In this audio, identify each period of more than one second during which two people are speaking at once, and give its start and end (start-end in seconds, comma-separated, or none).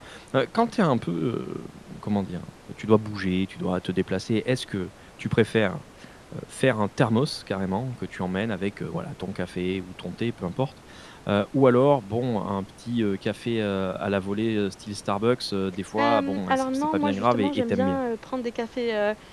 16.0-18.0